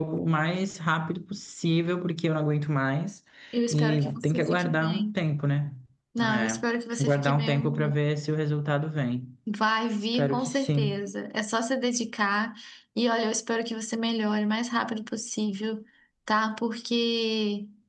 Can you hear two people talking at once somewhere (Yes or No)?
Yes